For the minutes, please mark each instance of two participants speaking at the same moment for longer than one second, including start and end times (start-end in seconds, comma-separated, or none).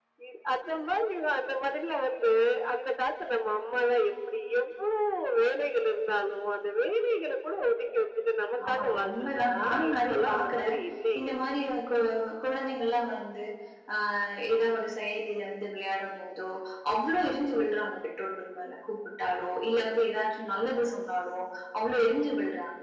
8.7-10.8